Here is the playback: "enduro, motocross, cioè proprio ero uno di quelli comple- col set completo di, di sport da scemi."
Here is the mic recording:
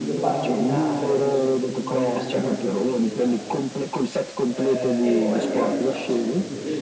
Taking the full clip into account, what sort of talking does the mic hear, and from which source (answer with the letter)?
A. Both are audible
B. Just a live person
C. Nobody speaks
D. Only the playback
A